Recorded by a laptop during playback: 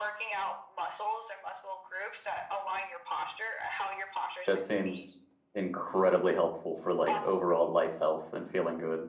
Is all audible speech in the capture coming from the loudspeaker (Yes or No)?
No